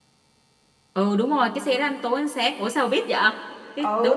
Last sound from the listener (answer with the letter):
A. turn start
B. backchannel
A